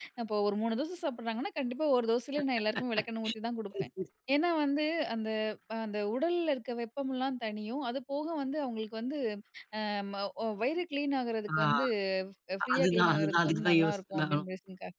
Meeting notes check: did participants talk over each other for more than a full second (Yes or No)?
Yes